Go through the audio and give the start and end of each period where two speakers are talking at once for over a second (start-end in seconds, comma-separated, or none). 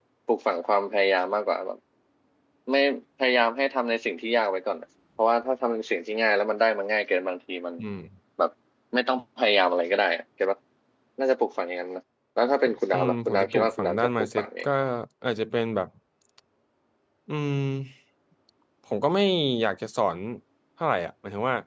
12.9-14.6